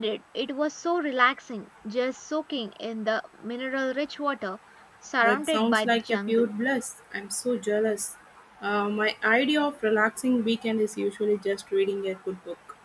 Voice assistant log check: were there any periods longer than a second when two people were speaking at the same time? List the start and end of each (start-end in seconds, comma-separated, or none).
5.2-6.5